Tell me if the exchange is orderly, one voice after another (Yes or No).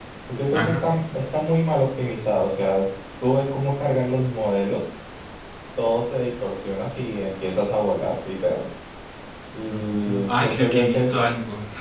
No